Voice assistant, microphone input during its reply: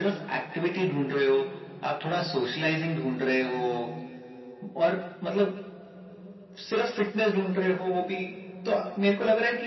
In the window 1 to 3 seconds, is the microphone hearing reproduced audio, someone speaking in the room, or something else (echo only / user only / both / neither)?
echo only